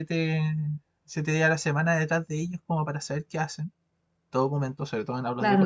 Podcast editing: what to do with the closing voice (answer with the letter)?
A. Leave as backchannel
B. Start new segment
B